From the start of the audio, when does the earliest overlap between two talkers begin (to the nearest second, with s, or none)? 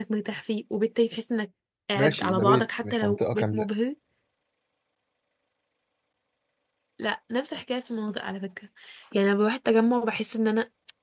2 s